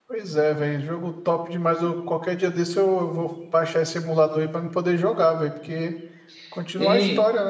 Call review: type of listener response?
taking over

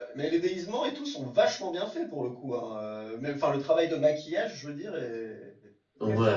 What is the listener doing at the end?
taking over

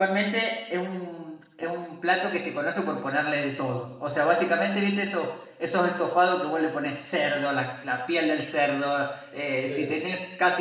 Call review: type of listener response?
listening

